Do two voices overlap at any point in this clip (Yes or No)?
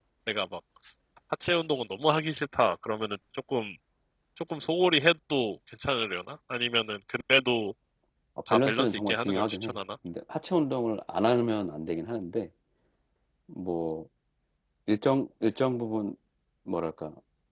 Yes